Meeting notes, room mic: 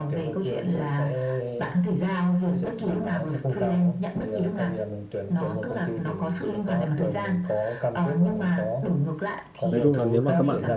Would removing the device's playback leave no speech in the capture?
No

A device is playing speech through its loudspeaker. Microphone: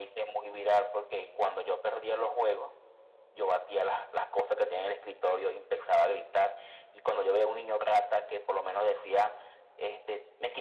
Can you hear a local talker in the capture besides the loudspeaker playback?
No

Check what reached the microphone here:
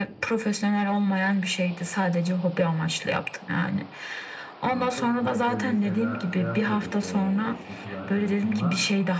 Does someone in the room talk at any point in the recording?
Yes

